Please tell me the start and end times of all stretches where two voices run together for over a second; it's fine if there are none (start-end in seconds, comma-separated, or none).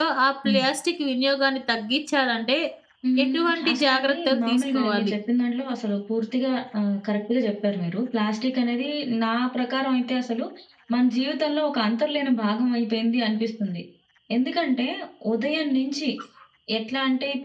3.2-5.1